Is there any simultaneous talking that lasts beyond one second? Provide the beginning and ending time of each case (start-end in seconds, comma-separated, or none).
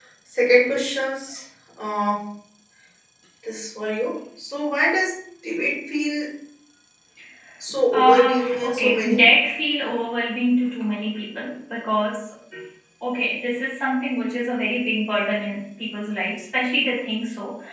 7.9-9.3